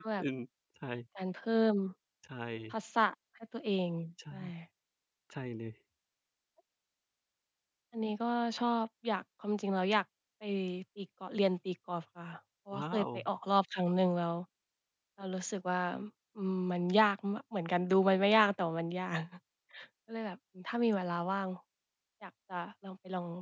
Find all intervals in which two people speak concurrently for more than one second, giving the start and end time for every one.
none

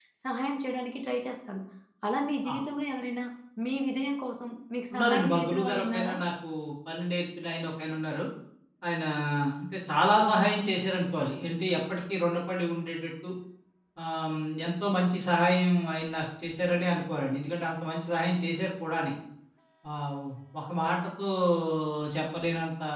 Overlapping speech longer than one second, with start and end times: 4.9-6.2

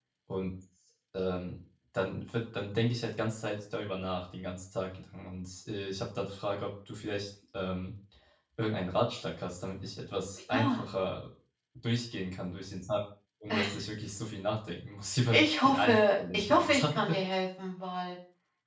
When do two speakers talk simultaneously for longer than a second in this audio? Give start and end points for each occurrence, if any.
15.3-17.2

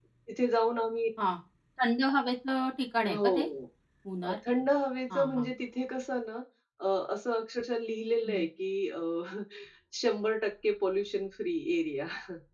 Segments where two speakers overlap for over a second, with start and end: none

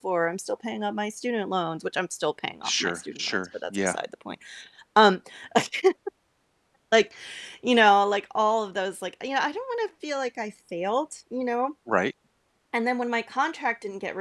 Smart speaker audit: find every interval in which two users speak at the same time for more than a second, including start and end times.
2.6-4.0

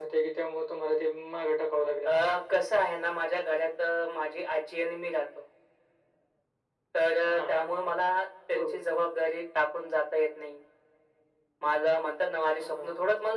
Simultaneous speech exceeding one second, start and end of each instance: none

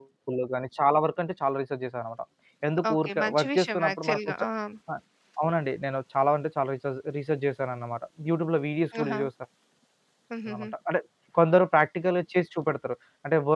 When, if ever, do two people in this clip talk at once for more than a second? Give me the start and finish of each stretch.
2.9-4.2

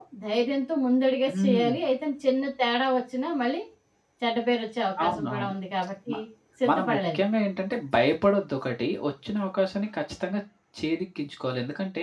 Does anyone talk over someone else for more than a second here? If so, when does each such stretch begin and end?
none

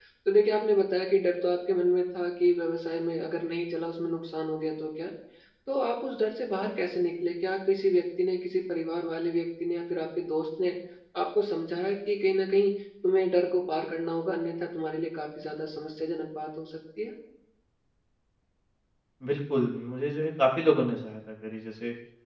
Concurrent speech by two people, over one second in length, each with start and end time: none

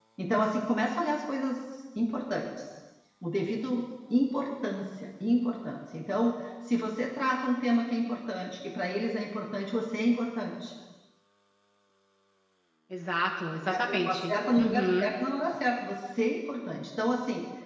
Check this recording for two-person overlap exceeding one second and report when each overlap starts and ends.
13.7-15.1

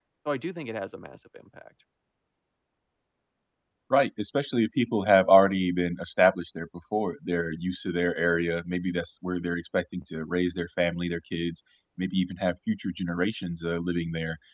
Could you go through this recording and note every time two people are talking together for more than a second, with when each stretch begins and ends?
none

